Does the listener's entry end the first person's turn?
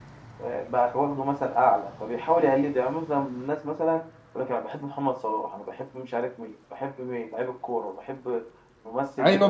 Yes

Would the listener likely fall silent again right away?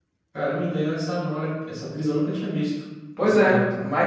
No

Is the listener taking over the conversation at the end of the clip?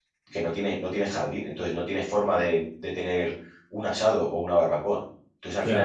No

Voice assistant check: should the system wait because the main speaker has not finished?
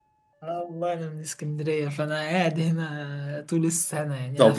No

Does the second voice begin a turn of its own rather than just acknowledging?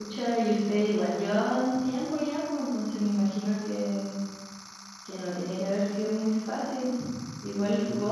No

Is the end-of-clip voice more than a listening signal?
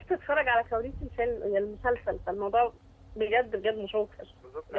Yes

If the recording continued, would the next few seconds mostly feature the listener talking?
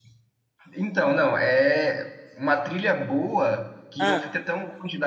No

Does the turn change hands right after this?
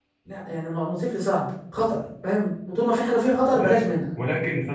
Yes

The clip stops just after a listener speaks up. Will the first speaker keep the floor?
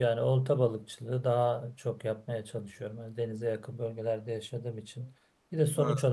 Yes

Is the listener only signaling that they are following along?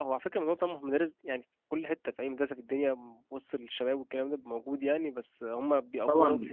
No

